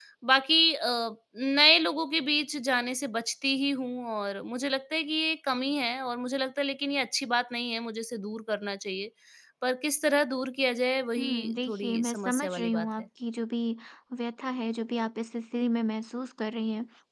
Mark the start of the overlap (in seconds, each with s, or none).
11.2 s